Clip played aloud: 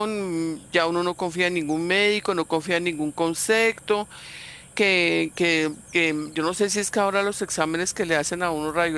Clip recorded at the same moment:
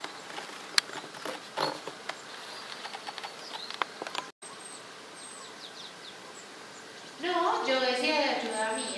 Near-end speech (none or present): present